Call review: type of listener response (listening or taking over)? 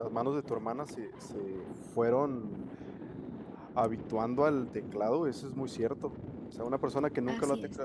listening